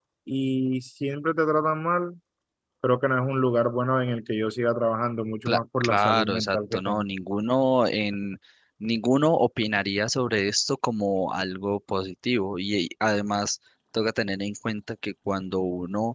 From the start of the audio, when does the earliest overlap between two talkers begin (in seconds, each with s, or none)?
5.5 s